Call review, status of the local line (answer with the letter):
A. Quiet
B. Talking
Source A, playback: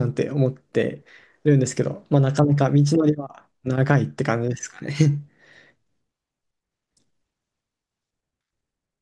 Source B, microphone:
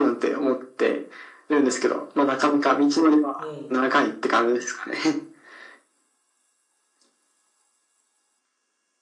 B